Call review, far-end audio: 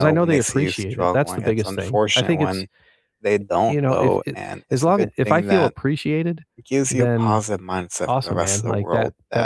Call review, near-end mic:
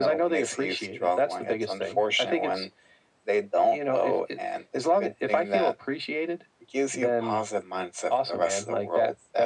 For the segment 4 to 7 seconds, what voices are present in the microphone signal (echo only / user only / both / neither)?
echo only